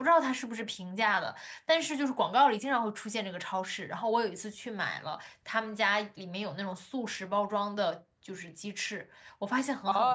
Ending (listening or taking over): taking over